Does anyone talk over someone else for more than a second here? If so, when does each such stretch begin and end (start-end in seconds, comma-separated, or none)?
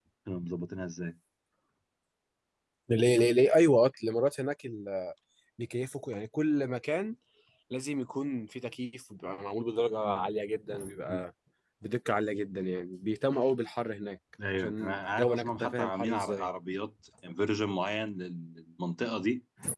14.5-16.5